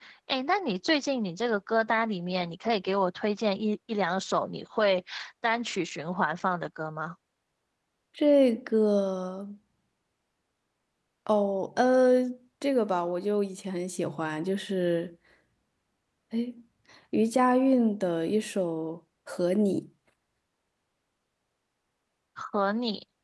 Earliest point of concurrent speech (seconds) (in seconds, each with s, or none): none